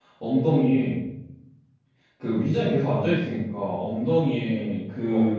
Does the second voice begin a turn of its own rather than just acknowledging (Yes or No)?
No